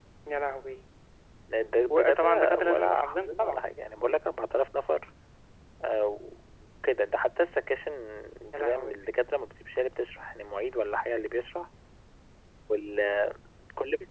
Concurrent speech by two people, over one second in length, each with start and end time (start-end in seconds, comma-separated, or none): 1.9-3.6